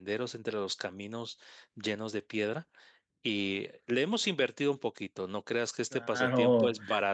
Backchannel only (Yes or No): No